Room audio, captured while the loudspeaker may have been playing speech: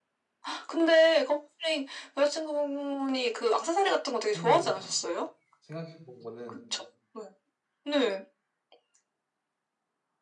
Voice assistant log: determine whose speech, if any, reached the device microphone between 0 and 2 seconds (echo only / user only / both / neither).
echo only